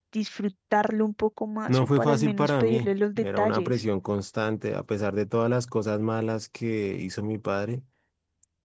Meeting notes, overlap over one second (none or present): present